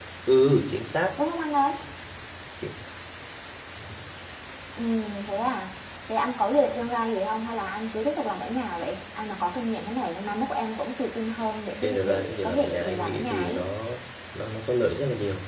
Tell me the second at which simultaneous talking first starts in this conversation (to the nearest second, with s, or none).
12 s